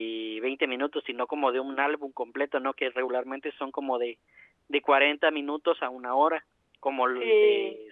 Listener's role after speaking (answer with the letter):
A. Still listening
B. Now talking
A